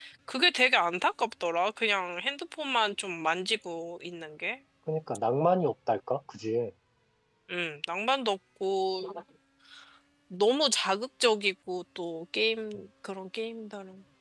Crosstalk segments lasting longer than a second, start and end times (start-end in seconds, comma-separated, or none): none